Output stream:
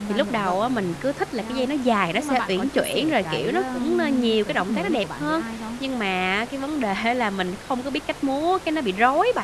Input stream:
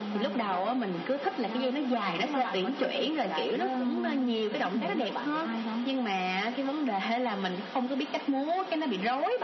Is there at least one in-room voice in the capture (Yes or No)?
No